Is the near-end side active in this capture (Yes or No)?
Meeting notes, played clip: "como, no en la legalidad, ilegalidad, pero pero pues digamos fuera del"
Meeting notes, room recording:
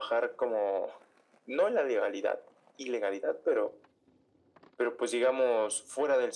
No